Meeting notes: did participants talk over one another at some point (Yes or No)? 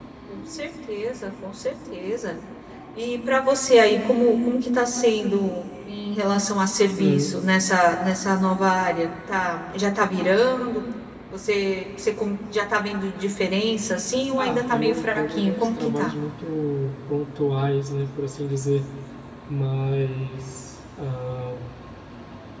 Yes